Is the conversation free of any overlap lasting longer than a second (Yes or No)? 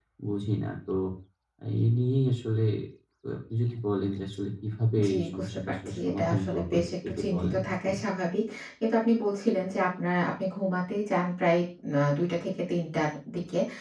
No